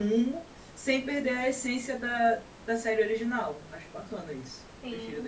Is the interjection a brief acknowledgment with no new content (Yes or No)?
No